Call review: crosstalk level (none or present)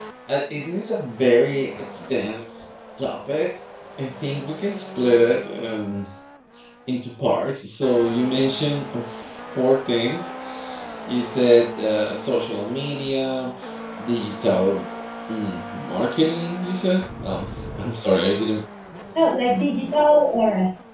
none